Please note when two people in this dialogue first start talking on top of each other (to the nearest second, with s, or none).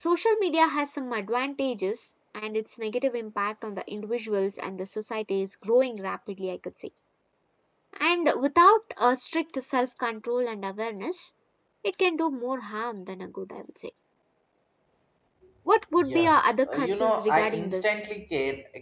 16 s